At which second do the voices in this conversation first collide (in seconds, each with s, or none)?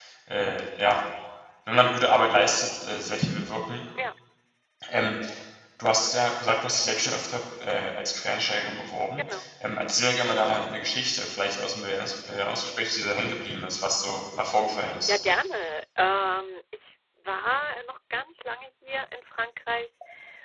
none